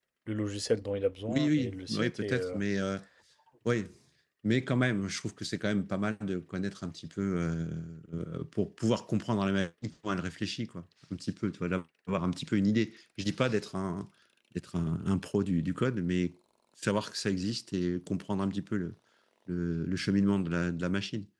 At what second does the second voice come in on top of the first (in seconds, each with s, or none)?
1.3 s